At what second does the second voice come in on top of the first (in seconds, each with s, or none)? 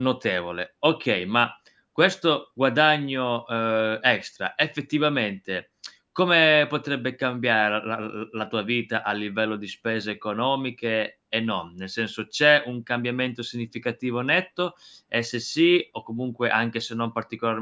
none